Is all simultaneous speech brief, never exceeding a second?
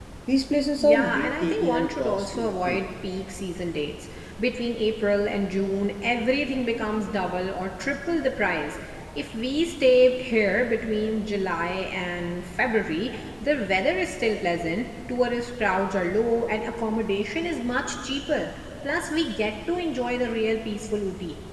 No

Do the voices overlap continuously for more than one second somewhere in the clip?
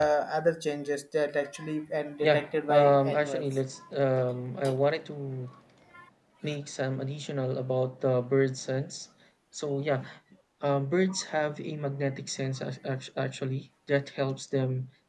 Yes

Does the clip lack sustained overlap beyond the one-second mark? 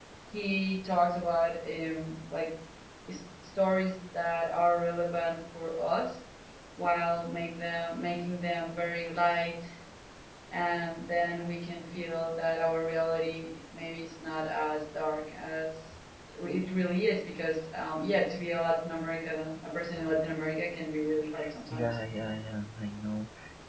Yes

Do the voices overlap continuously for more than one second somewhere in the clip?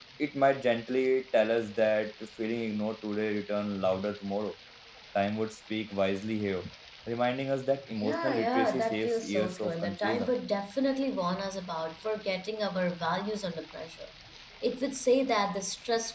Yes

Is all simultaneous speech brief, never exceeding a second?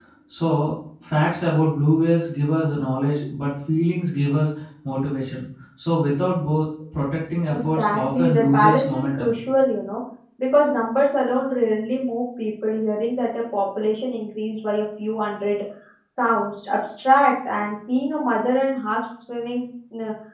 No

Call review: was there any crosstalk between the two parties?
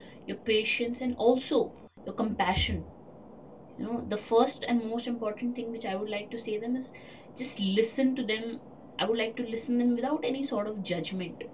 No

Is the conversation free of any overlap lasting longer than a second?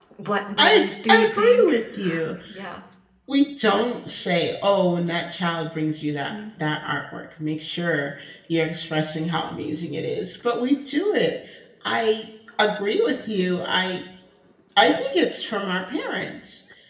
No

